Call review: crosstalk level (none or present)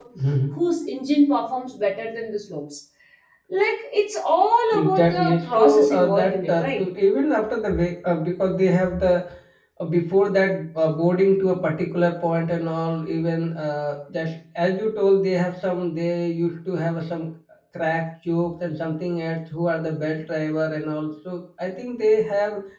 present